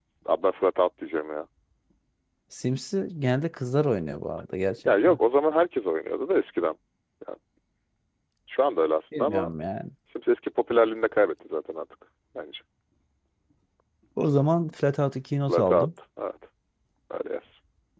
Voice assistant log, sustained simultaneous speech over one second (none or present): none